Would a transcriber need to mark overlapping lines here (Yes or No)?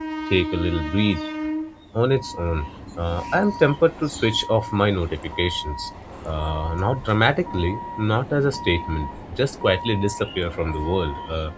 No